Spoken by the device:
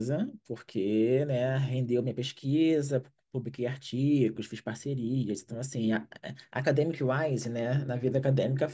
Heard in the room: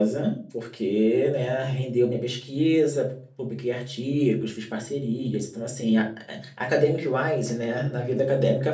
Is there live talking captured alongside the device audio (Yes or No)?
No